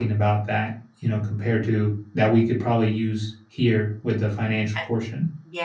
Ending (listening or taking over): taking over